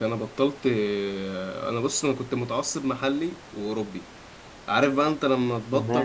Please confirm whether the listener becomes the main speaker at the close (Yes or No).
No